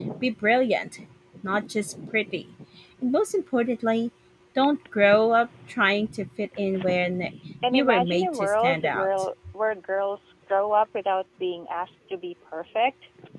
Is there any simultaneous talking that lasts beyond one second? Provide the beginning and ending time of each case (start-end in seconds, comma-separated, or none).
7.7-9.1